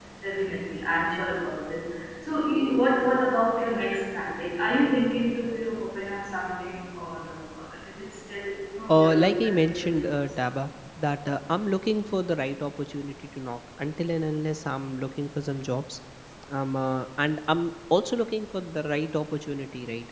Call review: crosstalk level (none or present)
present